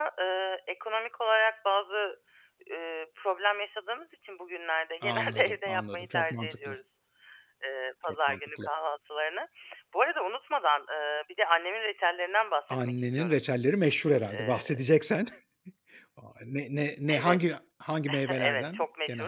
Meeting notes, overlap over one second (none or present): present